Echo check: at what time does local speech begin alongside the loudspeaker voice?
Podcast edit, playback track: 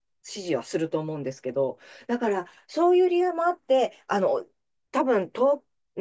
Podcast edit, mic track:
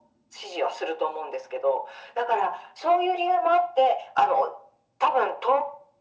none

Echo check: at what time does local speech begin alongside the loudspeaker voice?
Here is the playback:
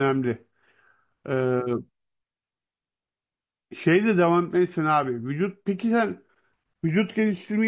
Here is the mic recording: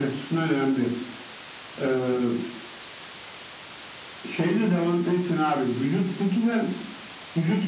none

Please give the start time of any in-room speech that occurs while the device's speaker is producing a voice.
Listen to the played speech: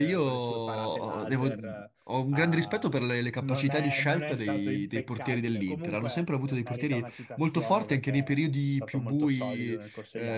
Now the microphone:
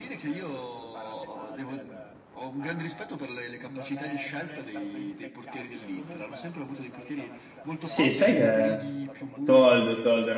7.8 s

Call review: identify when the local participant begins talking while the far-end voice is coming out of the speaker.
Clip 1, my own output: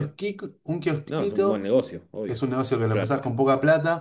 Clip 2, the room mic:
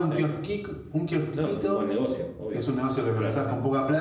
none

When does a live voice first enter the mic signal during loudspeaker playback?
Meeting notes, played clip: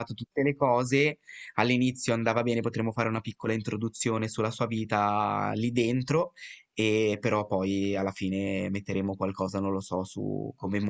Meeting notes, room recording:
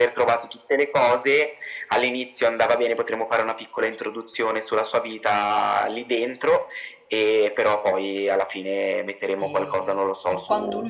9.3 s

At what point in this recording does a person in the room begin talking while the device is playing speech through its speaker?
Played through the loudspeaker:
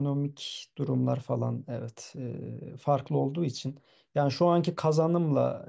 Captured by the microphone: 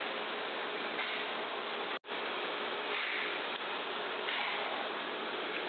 none

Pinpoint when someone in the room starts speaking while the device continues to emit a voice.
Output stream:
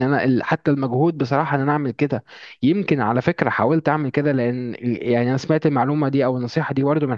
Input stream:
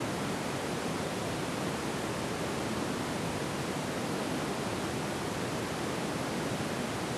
none

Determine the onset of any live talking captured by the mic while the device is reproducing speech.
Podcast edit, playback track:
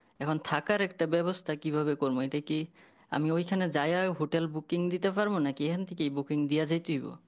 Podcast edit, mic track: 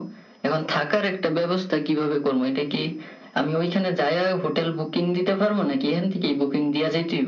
none

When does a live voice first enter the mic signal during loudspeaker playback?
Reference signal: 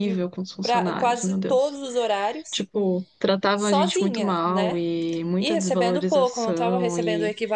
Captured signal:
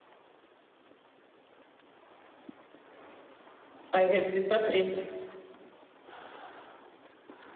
3.9 s

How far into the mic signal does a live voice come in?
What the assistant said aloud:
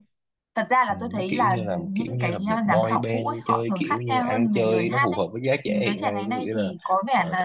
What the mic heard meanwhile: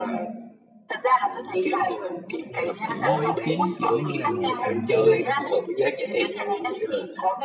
2.9 s

